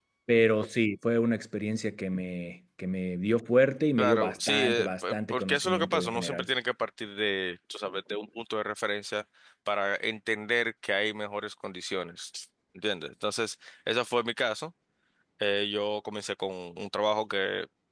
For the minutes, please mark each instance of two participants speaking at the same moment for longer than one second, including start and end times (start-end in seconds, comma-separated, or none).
4.0-6.5